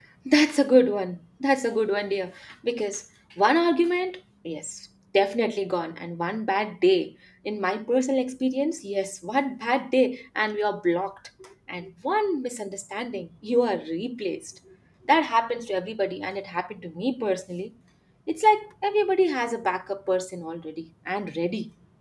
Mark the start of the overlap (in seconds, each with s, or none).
none